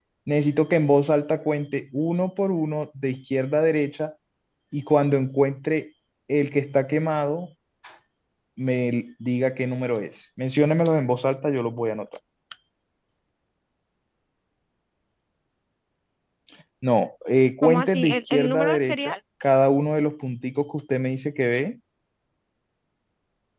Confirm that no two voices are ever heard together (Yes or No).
No